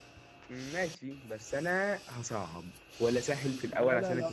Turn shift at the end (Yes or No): Yes